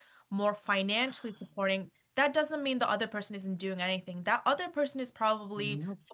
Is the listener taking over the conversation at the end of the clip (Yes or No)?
No